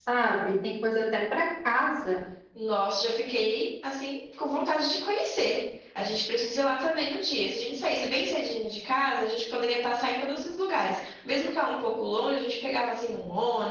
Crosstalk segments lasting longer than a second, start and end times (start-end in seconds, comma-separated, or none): none